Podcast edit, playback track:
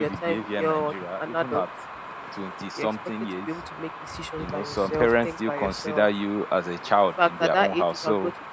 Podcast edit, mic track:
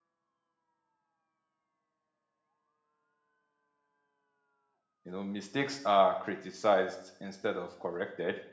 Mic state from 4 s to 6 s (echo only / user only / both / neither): user only